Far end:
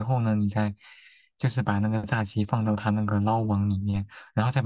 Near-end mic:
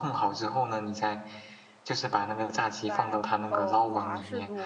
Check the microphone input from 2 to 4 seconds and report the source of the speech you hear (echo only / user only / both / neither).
both